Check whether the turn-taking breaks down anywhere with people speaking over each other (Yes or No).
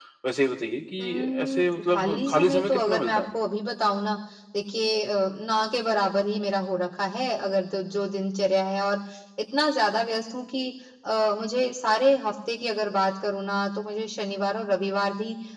Yes